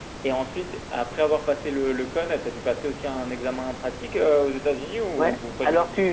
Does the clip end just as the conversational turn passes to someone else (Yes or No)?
Yes